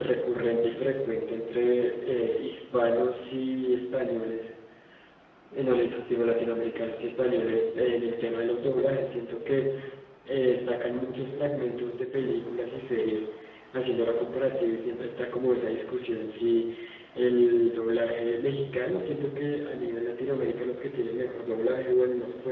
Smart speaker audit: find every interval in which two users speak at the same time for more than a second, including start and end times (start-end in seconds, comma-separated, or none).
none